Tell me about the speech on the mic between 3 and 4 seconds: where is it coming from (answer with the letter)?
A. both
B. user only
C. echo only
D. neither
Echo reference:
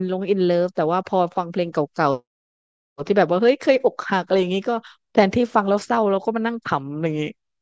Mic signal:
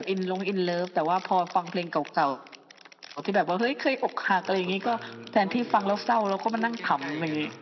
C